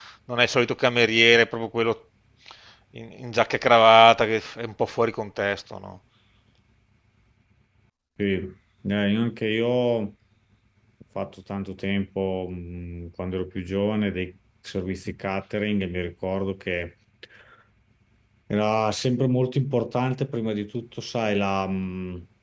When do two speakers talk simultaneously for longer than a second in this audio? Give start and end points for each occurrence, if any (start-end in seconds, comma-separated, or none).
none